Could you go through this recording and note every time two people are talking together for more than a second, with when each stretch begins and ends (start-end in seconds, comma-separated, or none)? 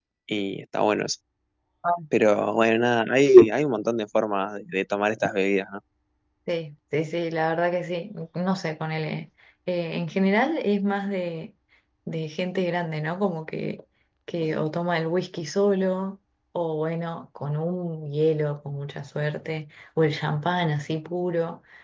none